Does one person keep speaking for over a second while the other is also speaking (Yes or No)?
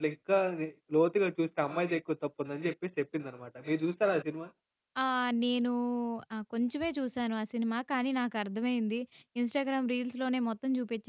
No